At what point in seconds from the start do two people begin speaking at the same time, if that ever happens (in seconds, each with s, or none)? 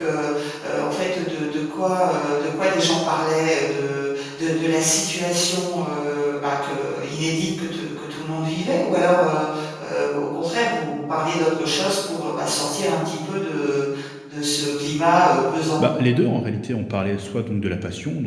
none